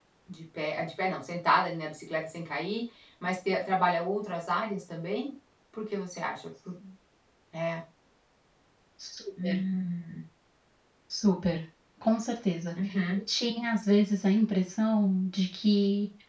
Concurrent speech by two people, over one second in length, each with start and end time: none

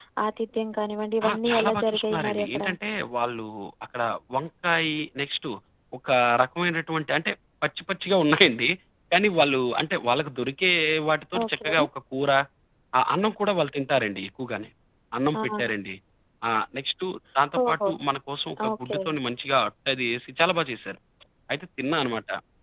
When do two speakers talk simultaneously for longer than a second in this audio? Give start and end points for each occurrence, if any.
1.3-2.6

